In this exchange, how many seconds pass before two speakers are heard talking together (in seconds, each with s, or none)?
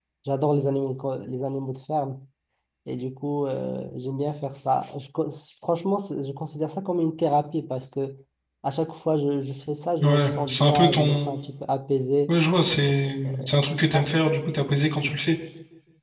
10.0 s